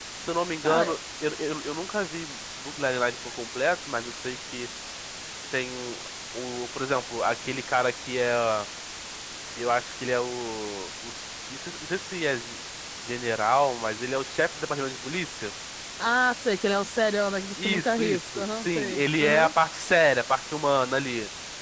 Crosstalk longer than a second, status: present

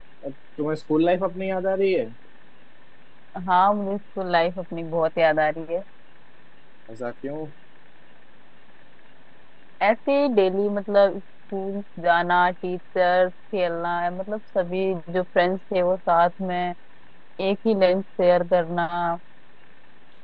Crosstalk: none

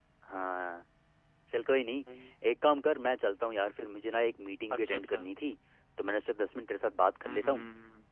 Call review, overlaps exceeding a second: none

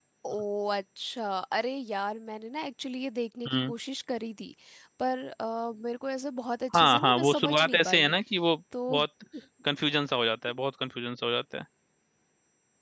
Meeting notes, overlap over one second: present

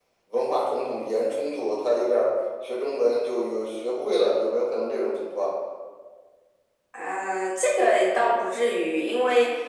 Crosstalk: none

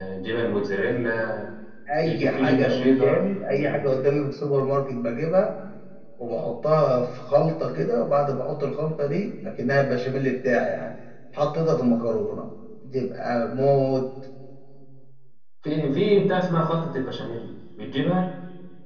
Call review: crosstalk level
present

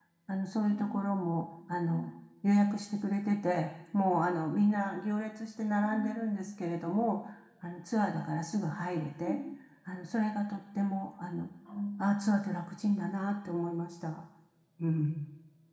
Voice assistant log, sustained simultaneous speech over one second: none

